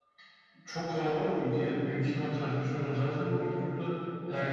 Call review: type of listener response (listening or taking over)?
listening